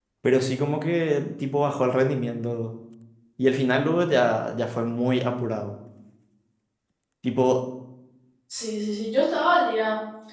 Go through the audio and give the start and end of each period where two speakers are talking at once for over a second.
none

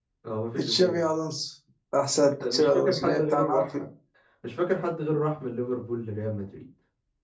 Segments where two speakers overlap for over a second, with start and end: 2.4-3.8

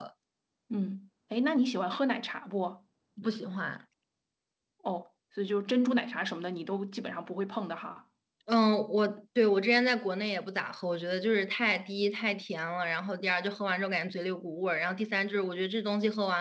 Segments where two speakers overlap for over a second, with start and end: none

